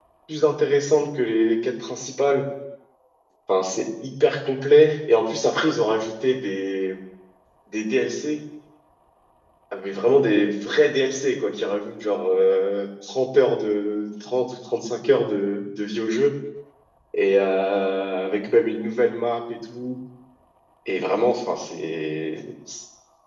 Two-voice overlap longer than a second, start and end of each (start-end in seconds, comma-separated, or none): none